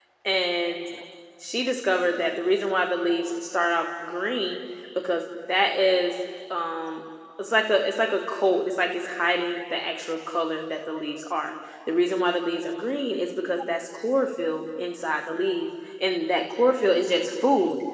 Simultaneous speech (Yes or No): No